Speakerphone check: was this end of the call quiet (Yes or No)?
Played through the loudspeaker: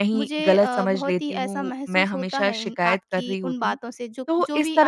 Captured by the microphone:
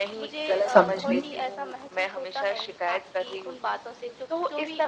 No